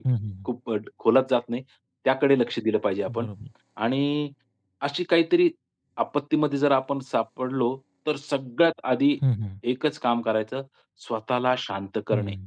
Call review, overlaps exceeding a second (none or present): none